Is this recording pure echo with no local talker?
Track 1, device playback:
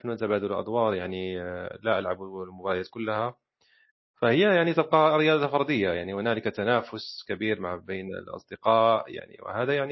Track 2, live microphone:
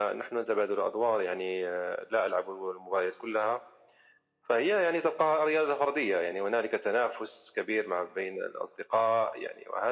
Yes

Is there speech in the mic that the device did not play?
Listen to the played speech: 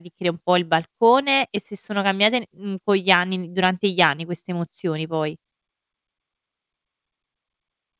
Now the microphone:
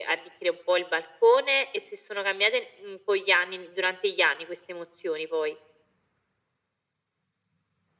No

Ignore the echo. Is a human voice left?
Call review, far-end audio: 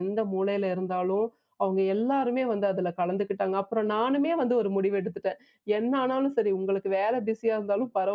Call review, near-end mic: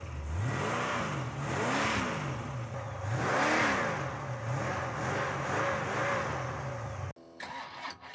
No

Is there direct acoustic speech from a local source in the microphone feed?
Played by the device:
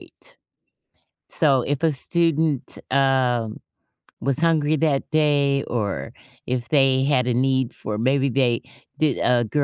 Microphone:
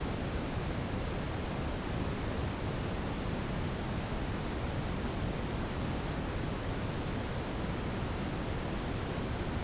No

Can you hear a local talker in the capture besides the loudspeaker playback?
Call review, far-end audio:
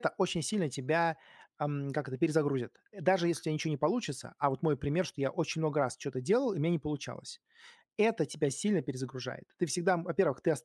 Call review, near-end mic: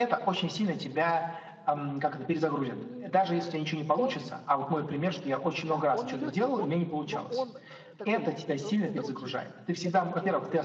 Yes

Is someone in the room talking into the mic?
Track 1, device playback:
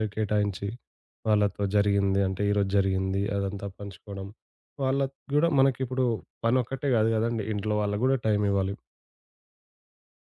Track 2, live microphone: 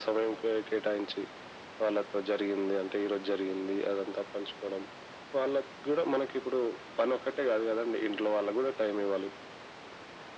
No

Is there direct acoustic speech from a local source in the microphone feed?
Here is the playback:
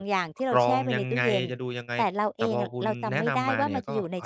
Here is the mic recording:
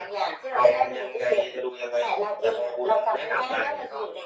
No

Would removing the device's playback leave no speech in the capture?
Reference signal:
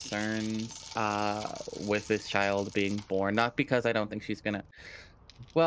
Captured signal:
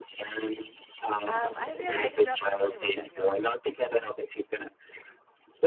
No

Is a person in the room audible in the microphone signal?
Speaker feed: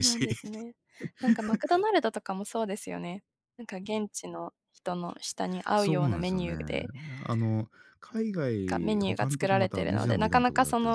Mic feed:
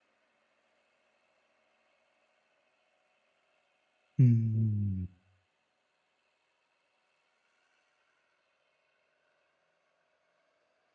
Yes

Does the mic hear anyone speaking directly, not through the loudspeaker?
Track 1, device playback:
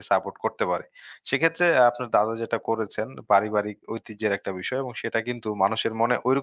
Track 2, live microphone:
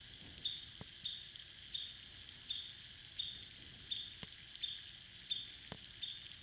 No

